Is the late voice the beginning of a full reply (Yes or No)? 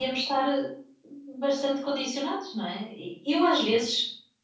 No